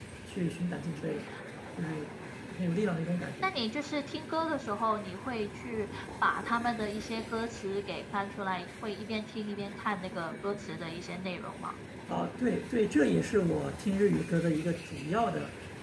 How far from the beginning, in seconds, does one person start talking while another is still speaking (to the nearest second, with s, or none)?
none